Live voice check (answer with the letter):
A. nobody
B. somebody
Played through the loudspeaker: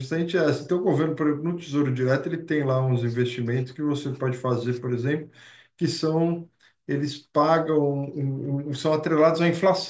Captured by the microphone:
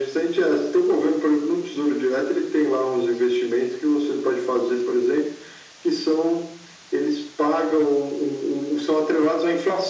A